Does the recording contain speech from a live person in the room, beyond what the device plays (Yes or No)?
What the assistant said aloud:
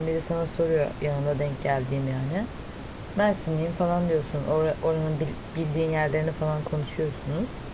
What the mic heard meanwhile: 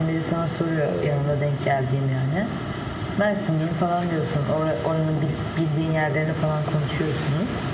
Yes